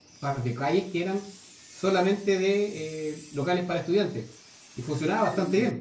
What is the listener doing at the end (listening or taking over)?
taking over